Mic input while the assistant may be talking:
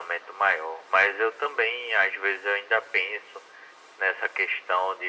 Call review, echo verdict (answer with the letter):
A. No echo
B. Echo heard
B